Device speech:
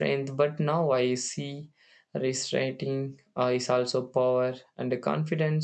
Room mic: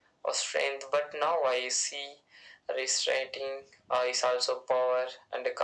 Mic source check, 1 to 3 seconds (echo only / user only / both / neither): echo only